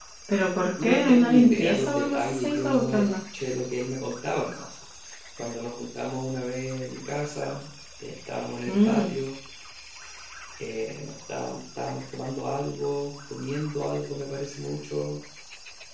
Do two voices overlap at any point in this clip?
Yes, from 0.8 s

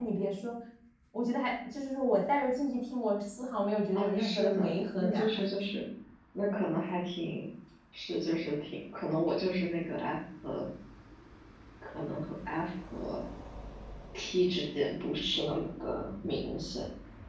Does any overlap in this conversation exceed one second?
Yes, from 4.0 s

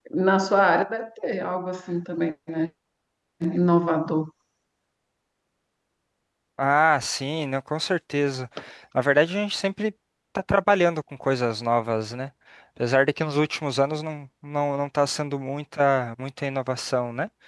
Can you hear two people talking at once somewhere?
No

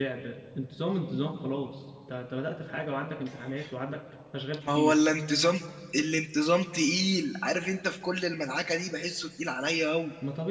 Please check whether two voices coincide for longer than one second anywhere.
No

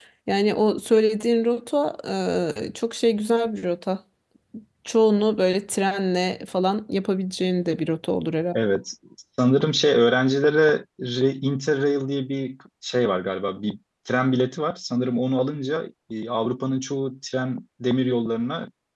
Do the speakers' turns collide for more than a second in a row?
No

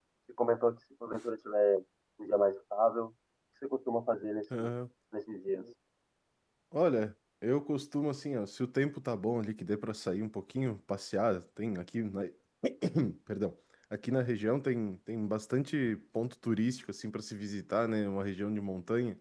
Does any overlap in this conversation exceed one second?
No

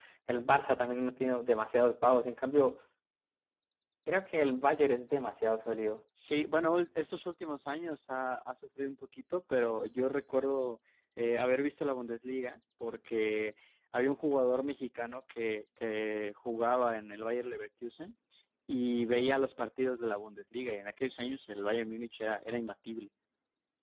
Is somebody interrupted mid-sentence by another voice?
No

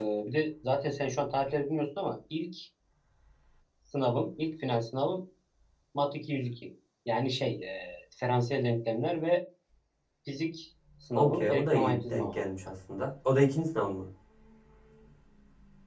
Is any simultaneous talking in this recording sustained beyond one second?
Yes, from 11.2 s

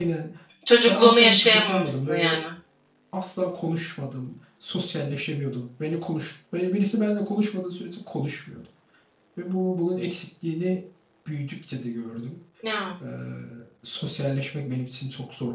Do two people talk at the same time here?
Yes, from 0.9 s

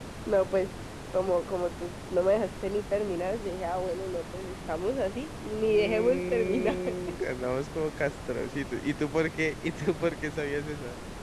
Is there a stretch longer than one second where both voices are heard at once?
Yes, from 5.4 s

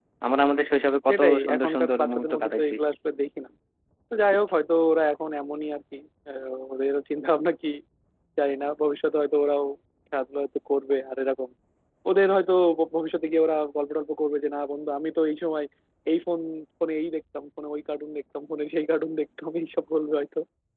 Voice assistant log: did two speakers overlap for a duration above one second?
Yes, from 1.1 s

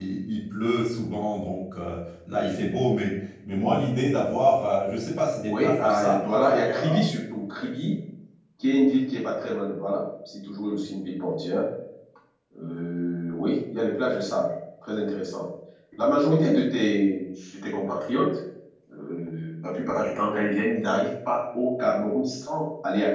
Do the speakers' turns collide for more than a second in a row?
Yes, from 5.4 s

